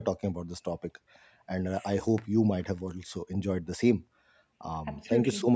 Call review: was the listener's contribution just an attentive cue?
Yes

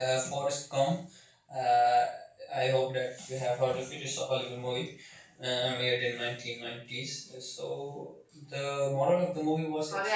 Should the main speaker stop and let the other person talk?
Yes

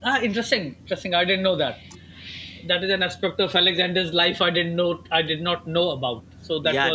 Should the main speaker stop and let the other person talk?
Yes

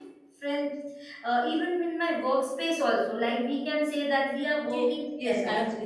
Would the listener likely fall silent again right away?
No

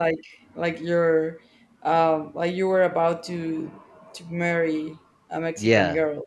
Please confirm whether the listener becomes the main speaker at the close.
Yes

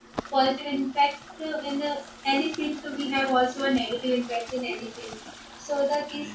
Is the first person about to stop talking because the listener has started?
No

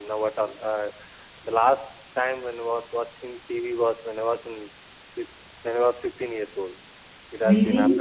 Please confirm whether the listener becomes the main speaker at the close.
No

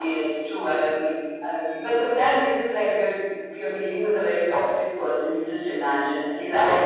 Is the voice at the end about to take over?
No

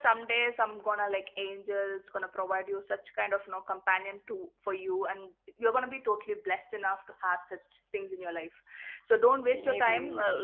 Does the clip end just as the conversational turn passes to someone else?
No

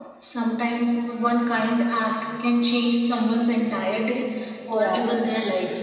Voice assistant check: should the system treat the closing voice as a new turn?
No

